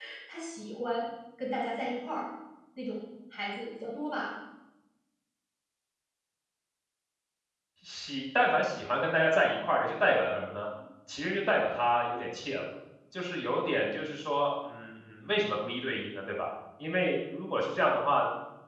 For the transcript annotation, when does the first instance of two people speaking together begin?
none

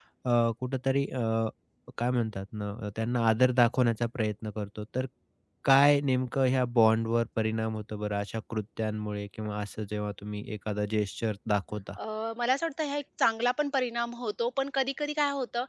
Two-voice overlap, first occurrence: none

